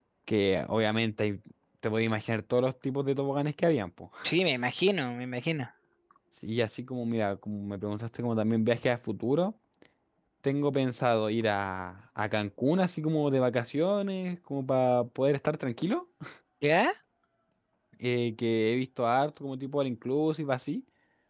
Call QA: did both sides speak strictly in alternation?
Yes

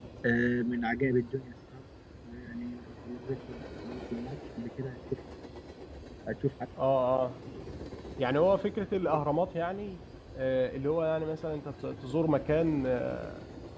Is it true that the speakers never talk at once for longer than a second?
Yes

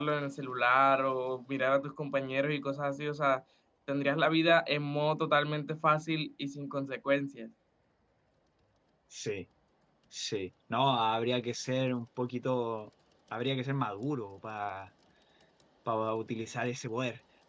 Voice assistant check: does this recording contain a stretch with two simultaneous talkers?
No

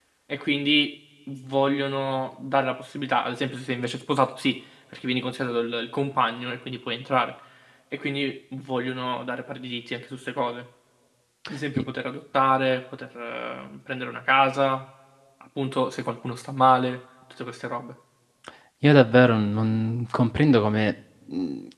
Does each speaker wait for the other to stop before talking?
Yes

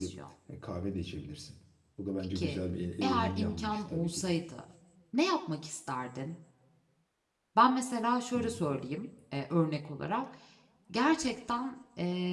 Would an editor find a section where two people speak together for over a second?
Yes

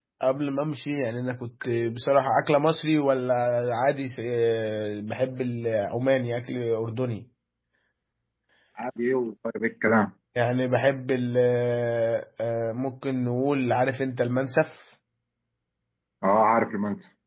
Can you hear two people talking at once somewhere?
No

